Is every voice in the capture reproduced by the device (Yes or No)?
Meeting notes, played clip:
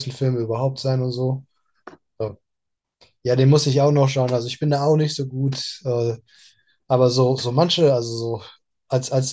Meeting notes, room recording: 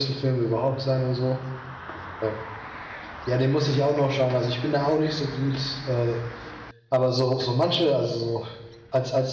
Yes